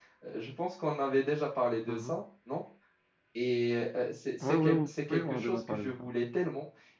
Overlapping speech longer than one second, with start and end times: 4.4-6.0

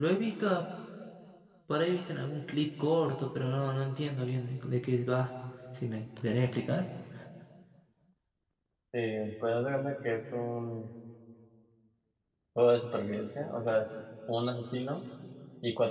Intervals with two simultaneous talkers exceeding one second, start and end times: none

